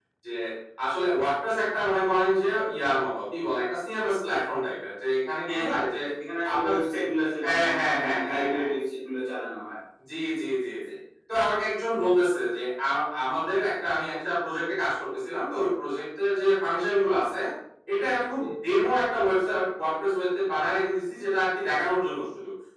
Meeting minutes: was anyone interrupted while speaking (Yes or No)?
Yes